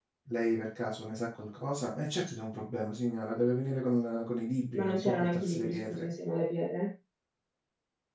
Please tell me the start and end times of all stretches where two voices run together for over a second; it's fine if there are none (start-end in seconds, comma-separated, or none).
4.7-6.1